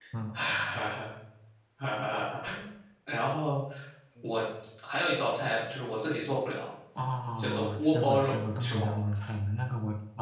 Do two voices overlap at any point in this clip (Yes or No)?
Yes